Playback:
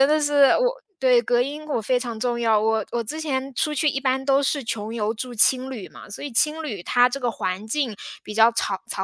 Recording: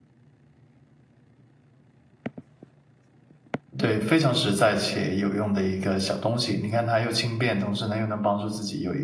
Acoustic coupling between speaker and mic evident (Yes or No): No